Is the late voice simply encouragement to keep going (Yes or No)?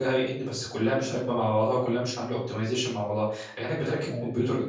Yes